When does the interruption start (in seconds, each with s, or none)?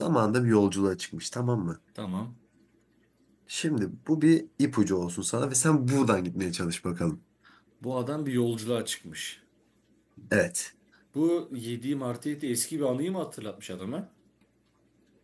none